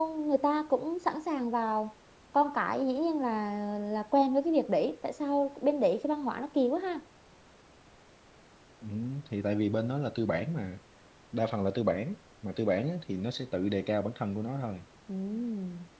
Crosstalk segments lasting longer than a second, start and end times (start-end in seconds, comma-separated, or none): none